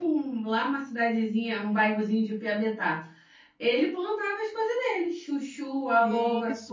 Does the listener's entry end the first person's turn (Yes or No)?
Yes